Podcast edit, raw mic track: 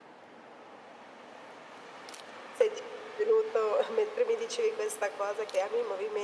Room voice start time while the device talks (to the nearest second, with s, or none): none